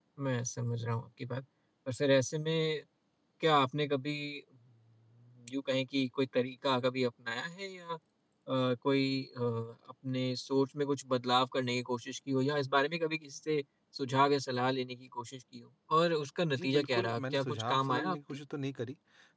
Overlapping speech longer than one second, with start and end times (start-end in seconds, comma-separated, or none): 16.6-18.2